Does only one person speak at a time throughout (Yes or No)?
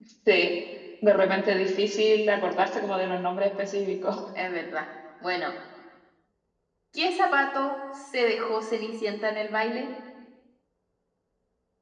Yes